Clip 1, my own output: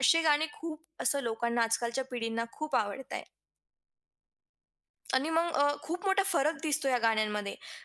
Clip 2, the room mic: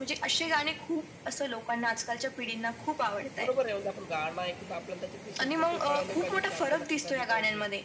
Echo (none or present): present